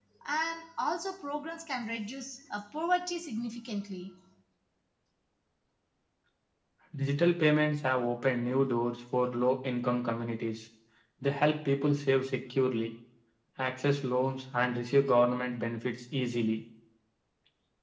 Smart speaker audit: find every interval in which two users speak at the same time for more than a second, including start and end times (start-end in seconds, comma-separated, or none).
none